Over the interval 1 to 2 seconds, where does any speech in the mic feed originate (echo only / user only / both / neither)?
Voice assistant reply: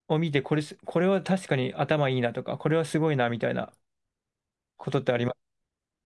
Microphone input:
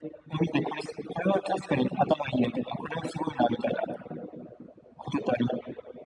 echo only